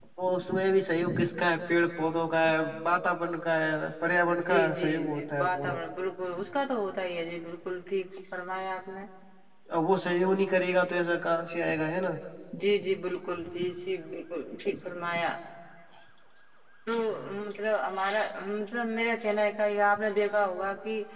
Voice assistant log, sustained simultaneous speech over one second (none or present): present